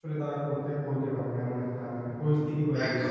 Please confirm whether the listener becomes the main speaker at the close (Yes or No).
Yes